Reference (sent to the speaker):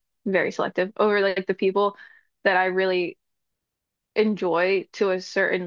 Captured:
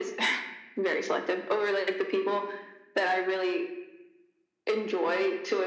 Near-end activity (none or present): none